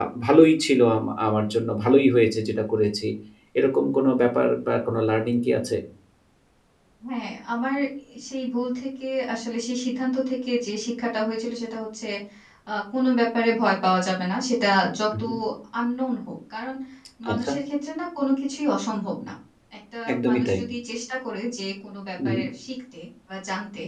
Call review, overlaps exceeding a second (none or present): none